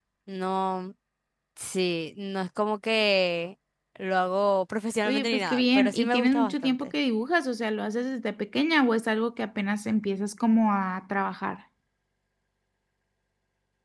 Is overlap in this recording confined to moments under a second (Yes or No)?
No